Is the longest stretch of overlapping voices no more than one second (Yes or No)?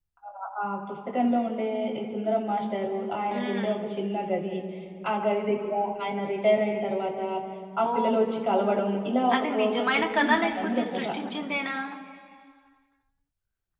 No